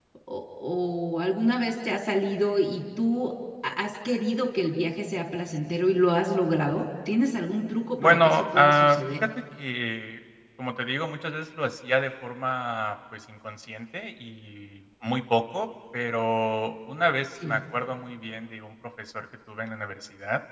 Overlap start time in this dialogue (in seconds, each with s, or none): 8.0 s